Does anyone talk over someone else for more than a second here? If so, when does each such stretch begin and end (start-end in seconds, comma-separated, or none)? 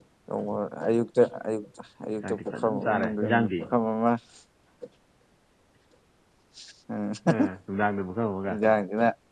2.2-3.6